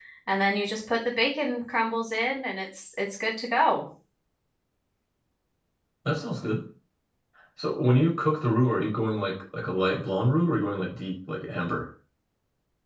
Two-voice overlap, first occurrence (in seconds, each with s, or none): none